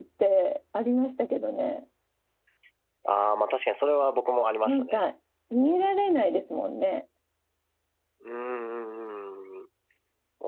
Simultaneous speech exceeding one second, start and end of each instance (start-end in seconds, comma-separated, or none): none